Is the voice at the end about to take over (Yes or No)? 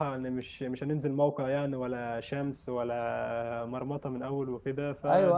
Yes